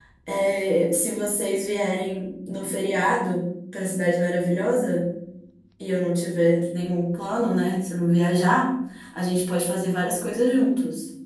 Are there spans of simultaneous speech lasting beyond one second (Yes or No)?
No